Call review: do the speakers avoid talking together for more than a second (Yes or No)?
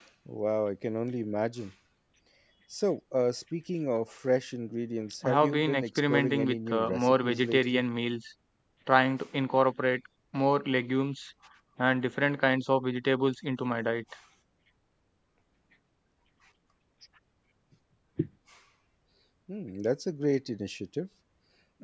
No